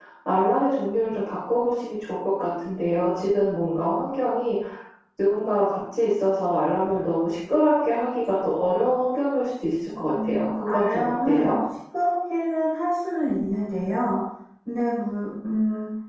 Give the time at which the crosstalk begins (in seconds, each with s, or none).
9.9 s